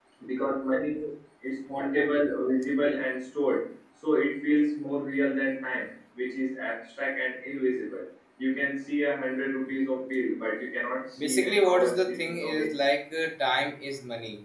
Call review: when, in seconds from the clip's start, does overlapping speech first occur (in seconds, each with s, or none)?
11.2 s